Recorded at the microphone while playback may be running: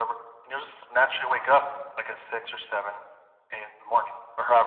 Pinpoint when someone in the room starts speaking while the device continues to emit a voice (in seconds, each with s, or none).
none